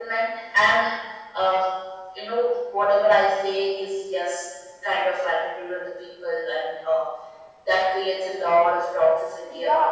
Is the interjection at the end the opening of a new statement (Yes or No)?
Yes